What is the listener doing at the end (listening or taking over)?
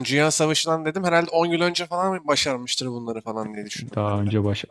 taking over